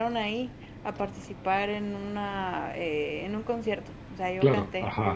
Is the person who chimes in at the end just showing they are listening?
Yes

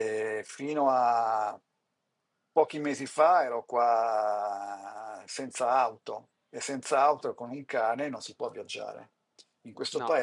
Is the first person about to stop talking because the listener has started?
No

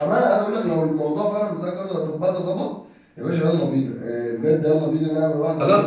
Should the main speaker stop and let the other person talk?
Yes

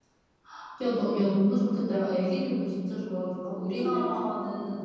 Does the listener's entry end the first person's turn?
No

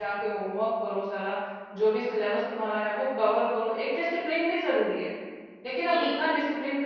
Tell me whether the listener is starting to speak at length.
No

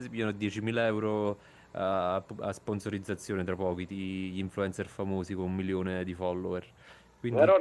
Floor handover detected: Yes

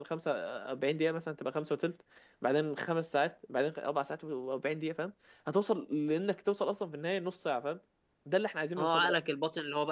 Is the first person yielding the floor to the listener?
Yes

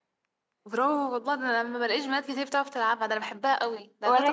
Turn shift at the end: Yes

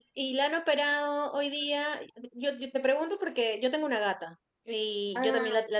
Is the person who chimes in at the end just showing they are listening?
Yes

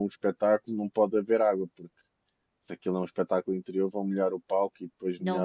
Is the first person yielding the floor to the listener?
Yes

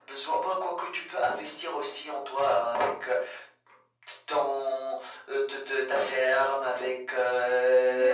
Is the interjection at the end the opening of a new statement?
No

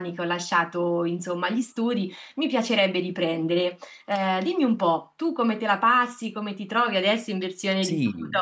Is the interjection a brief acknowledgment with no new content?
No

